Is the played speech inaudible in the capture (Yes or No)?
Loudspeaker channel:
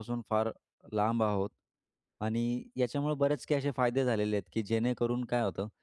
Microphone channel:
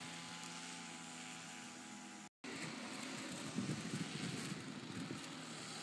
Yes